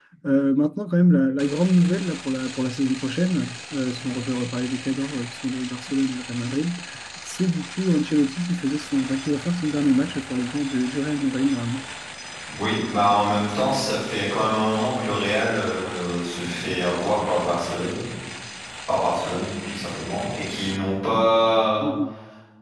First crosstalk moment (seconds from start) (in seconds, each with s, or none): none